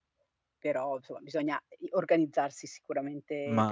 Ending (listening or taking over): taking over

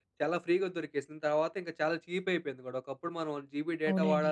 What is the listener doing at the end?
taking over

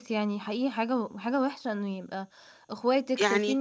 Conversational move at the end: listening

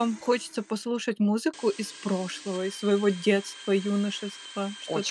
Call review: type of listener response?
taking over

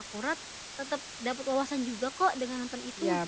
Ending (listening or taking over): taking over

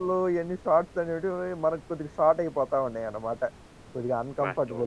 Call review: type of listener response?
taking over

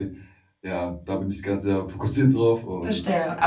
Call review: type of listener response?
taking over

